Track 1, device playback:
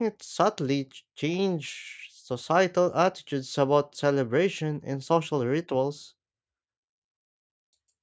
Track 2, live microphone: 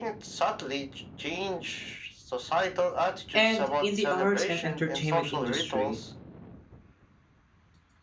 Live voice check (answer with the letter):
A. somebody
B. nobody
A